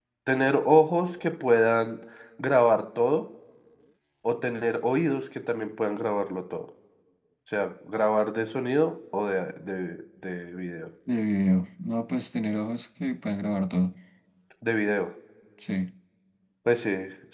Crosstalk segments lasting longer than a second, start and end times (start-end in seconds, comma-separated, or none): none